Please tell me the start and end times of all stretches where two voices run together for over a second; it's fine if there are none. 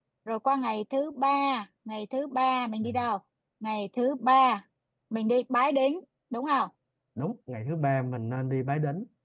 none

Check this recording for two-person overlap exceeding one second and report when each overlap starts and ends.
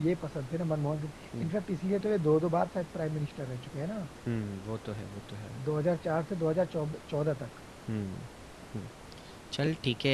none

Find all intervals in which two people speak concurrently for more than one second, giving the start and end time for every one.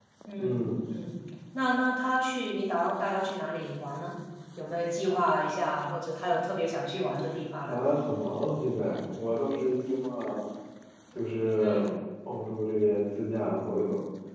none

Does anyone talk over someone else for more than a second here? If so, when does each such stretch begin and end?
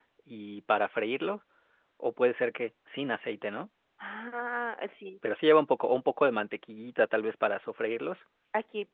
none

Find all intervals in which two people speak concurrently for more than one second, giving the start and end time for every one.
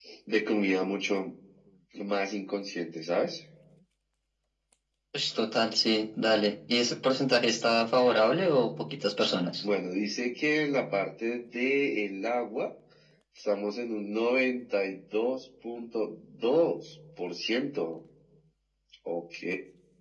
none

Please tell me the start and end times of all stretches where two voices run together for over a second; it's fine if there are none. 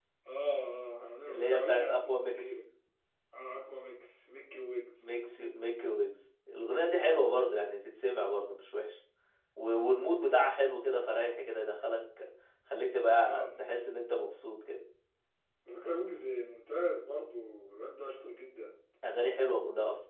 1.3-2.6

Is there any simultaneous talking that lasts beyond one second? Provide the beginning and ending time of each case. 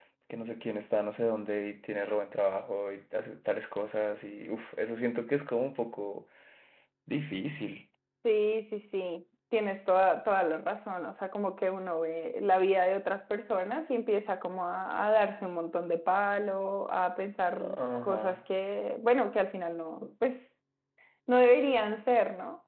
none

